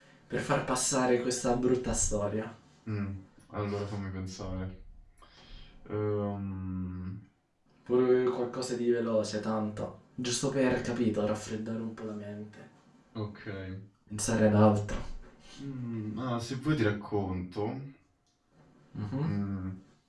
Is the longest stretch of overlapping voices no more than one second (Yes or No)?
Yes